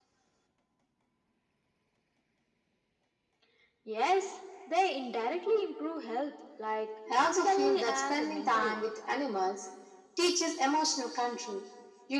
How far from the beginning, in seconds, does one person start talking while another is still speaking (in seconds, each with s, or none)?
7.1 s